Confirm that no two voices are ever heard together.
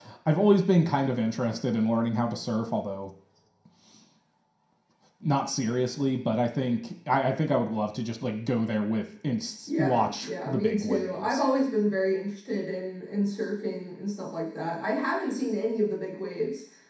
No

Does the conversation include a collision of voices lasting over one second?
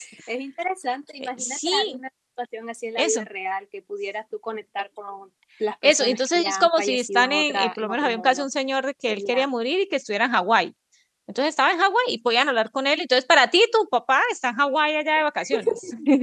Yes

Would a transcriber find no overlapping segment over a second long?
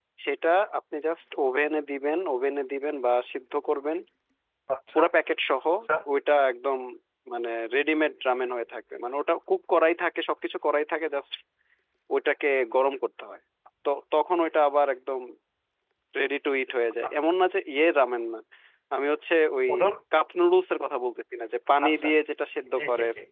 Yes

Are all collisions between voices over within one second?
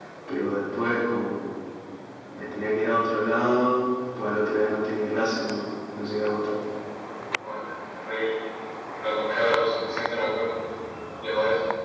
Yes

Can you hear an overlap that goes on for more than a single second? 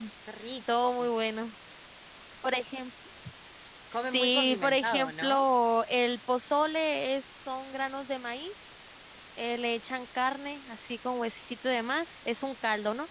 Yes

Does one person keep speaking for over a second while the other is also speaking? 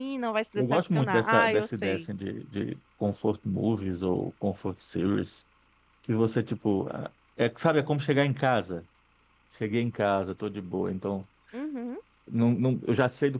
Yes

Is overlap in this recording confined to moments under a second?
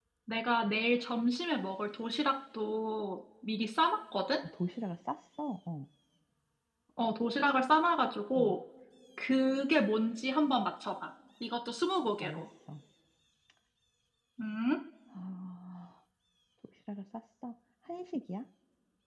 Yes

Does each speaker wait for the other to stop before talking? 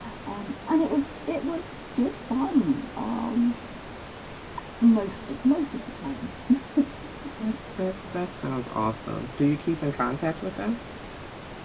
Yes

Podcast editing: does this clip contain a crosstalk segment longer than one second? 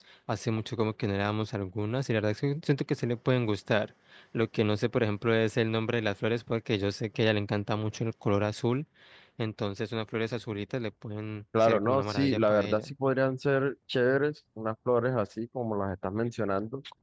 Yes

